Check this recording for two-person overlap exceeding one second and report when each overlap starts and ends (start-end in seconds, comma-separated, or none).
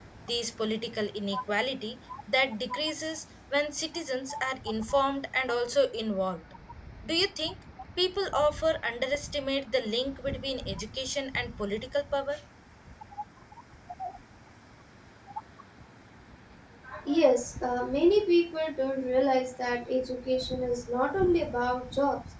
none